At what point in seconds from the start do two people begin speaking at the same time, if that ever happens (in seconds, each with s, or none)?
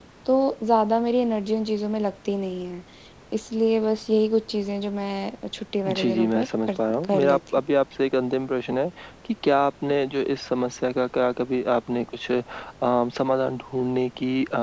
5.8 s